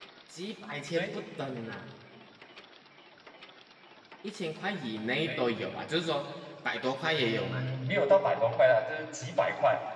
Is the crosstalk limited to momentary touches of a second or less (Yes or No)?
Yes